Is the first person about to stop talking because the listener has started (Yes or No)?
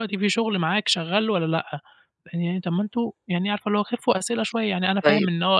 No